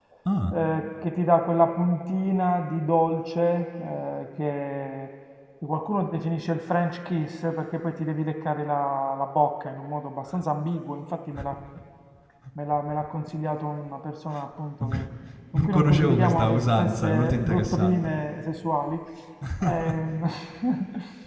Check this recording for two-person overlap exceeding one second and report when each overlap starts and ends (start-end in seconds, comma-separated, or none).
15.6-18.1